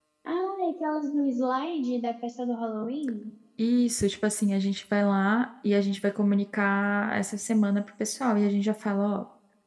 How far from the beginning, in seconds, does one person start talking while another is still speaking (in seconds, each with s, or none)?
none